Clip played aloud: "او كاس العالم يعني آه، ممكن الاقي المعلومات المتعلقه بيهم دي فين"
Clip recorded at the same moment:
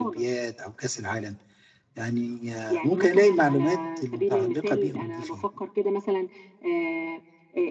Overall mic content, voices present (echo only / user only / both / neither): both